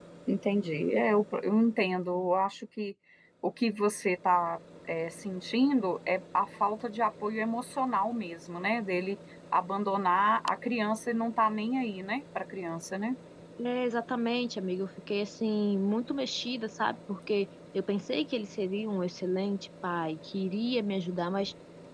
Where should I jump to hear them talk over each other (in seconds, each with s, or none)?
none